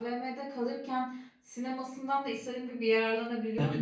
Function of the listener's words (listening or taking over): taking over